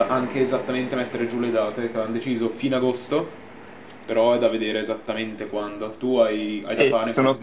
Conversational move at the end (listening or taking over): taking over